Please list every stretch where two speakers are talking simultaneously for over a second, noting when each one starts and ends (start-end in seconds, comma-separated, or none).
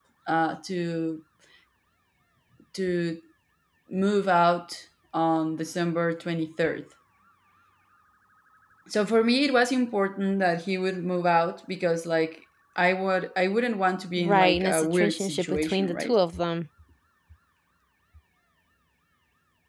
14.2-16.1